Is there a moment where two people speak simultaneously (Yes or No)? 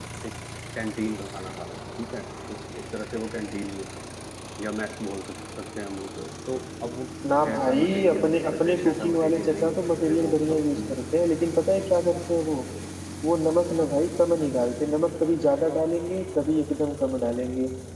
Yes